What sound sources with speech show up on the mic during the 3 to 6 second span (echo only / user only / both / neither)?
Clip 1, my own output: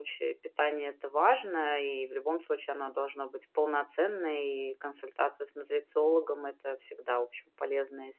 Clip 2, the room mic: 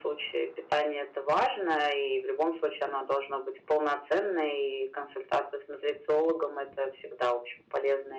echo only